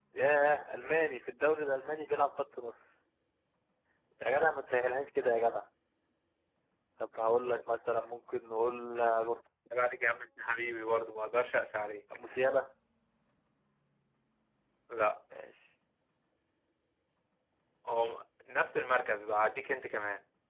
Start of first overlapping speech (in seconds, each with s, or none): none